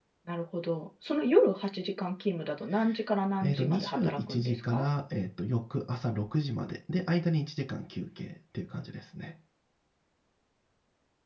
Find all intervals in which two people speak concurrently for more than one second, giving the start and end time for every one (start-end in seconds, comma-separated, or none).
3.4-4.8